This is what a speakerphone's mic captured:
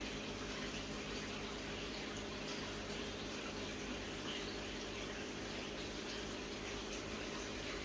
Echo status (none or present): none